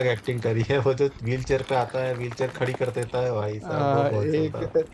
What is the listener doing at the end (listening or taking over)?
taking over